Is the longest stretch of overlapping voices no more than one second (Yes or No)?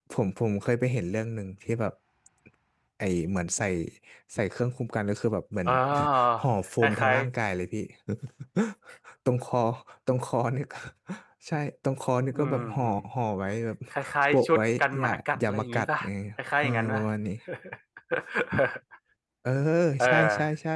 No